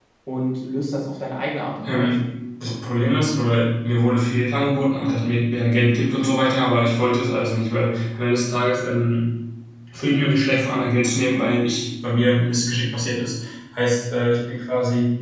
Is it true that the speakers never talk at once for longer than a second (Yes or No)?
Yes